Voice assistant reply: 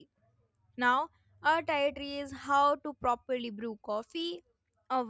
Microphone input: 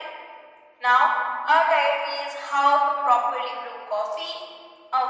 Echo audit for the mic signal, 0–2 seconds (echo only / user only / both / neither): echo only